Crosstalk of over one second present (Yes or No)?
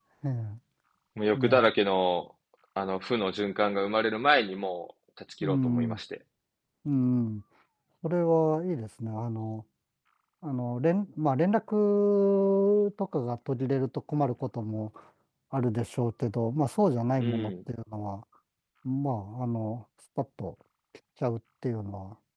No